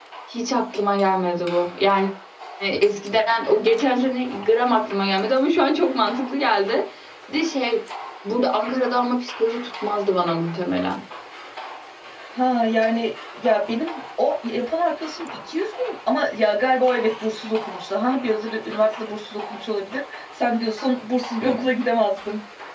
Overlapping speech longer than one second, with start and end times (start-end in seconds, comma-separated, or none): none